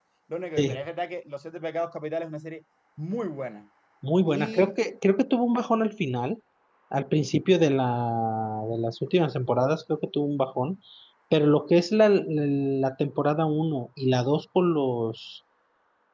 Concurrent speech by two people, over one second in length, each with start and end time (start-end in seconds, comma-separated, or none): none